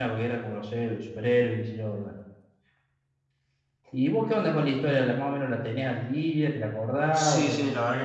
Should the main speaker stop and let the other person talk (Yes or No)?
Yes